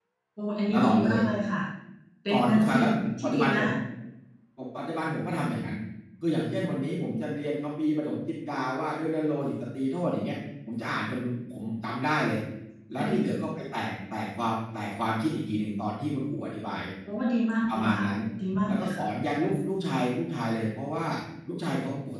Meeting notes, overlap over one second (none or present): present